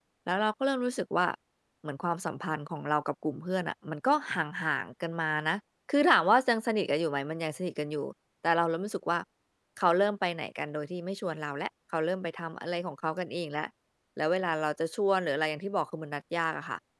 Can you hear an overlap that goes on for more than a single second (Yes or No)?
No